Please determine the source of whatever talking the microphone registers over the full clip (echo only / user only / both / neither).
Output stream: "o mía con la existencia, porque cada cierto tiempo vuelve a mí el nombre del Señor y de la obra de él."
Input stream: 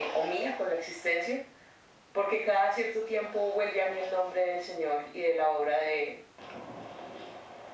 echo only